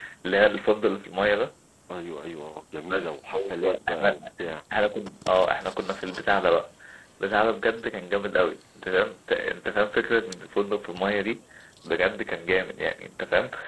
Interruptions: present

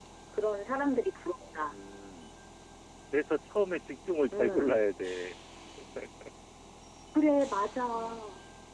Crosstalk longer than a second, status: none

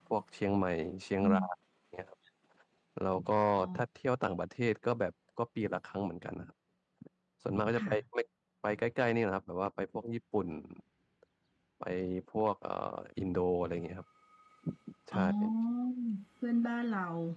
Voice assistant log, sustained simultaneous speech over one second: none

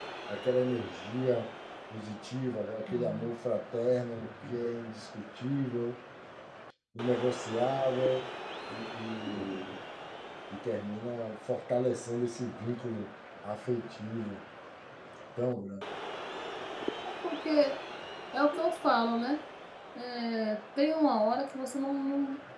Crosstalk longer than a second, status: none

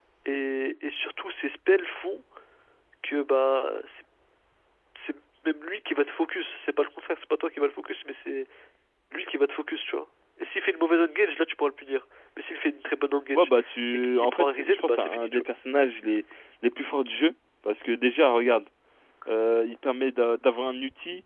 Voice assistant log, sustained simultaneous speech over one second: present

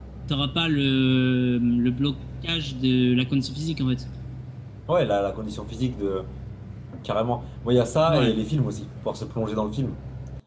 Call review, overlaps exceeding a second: none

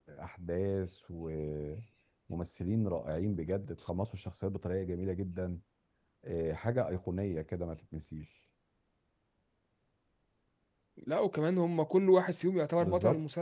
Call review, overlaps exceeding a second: none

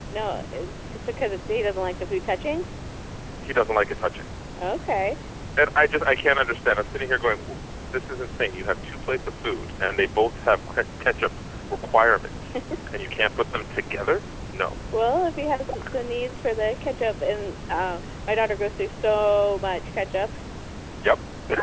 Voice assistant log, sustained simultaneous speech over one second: none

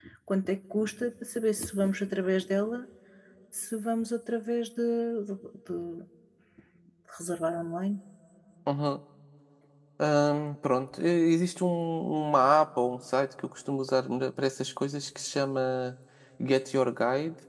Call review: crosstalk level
none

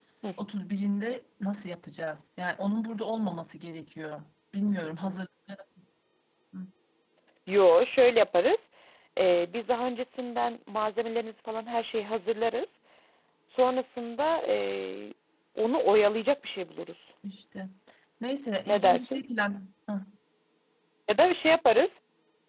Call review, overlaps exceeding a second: none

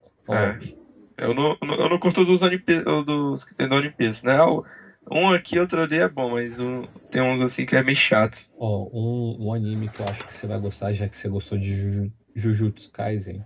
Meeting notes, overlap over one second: none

